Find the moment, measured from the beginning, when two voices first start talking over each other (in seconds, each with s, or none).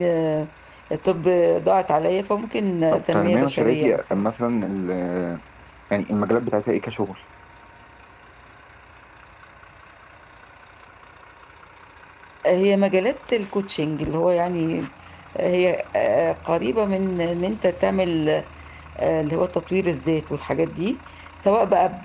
2.9 s